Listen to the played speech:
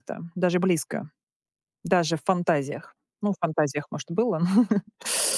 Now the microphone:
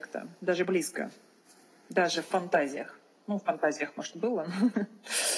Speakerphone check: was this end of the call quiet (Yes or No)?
Yes